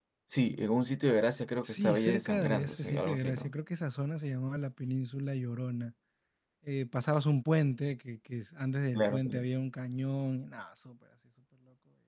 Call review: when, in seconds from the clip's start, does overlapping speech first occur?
1.6 s

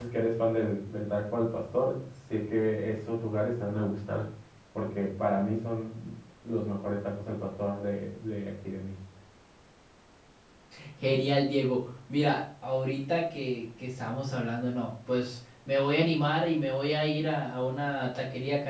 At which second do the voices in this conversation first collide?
none

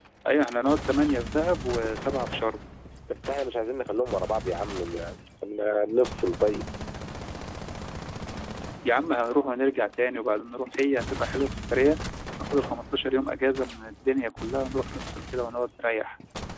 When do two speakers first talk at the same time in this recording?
none

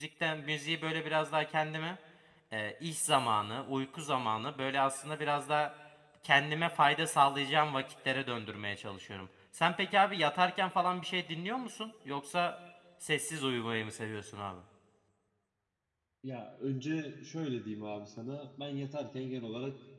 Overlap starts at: none

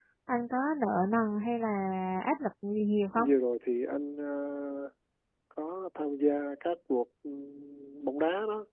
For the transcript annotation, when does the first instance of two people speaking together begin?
none

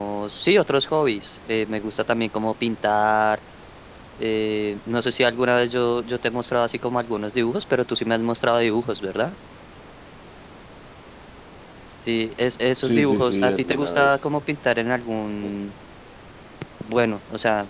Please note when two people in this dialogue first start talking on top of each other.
12.8 s

